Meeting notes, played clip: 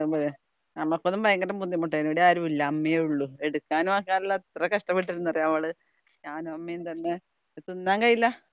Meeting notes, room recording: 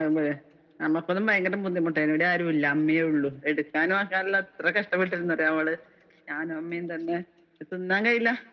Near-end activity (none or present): none